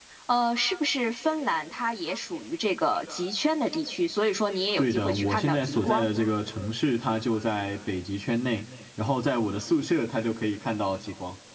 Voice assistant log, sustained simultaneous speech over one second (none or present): present